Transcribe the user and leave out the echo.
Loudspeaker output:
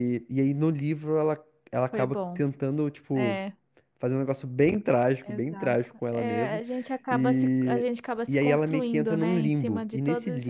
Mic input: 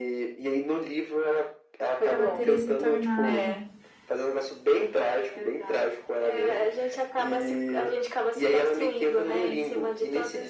Ela teria se tornado.

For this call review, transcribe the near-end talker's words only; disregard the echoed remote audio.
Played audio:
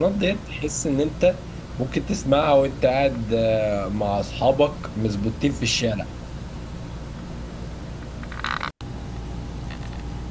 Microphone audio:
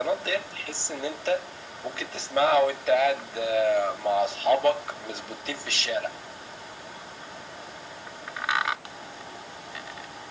none

